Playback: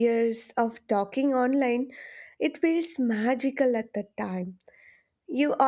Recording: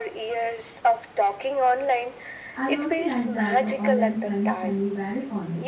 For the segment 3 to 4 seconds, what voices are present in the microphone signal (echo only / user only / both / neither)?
both